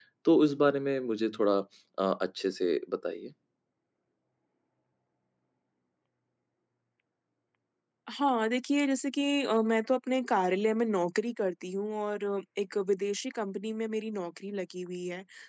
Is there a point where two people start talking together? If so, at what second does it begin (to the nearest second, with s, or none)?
none